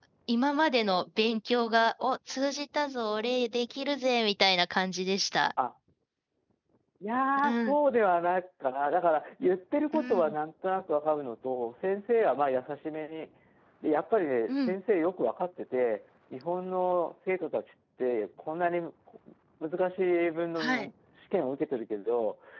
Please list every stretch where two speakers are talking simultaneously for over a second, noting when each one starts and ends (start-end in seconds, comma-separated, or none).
none